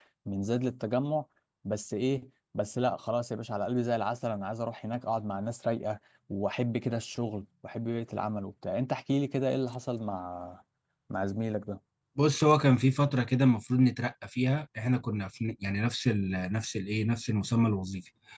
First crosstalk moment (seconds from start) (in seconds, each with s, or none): none